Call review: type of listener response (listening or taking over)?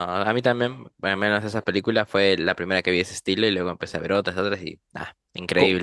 taking over